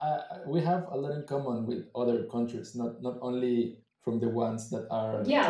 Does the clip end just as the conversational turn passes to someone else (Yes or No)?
Yes